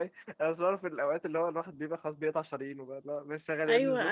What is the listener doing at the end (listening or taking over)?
taking over